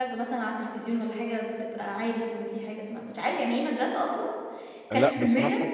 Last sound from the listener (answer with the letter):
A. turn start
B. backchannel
A